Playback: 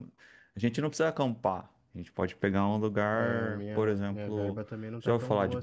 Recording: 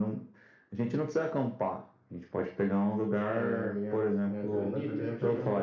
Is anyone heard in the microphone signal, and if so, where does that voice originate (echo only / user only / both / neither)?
both